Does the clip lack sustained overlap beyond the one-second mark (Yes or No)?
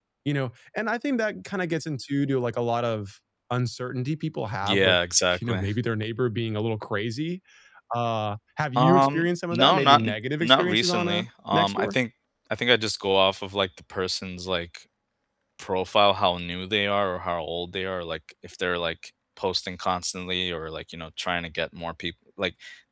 No